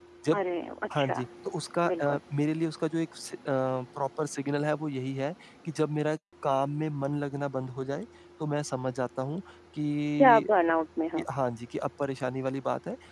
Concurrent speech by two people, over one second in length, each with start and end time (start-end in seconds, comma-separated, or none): none